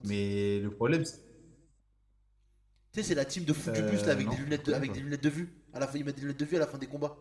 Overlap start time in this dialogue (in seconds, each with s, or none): 3.7 s